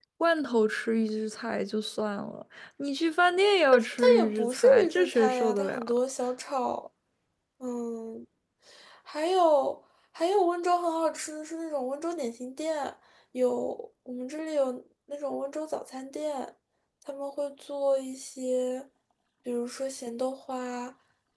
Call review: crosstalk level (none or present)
present